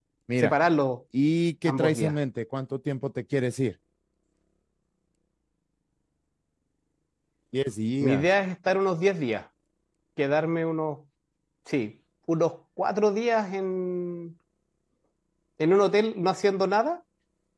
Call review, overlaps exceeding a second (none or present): none